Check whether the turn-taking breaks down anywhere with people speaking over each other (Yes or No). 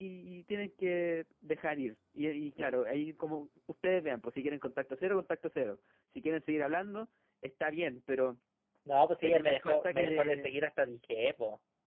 Yes